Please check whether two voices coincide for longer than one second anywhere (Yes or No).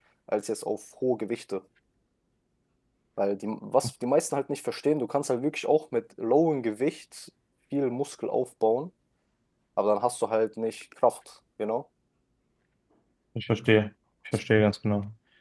No